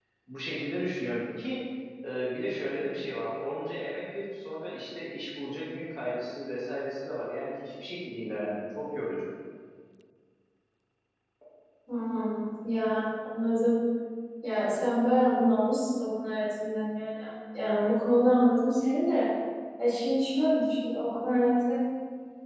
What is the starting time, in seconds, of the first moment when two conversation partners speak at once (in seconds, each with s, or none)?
none